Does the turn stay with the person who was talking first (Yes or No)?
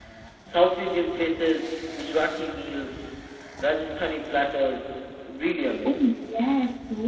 No